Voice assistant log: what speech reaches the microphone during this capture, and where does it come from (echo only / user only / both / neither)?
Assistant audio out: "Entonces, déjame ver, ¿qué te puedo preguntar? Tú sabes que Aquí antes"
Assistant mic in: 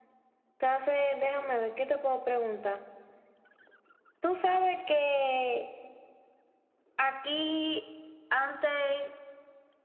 echo only